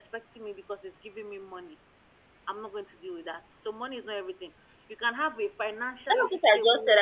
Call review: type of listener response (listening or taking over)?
taking over